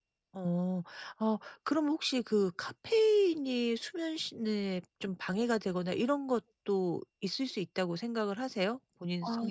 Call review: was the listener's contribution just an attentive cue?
No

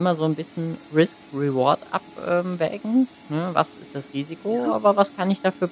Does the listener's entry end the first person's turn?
No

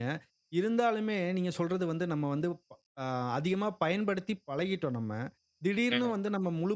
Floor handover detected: No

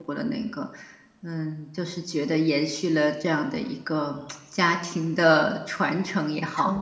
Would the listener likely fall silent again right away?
No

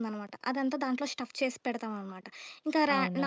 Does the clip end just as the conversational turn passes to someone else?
No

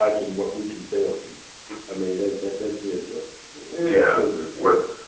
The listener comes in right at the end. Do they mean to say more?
Yes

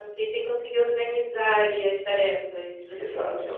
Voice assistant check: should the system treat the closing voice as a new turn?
Yes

